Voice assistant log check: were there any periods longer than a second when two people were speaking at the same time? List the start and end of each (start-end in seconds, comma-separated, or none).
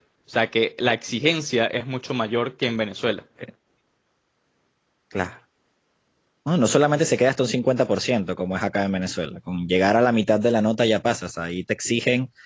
none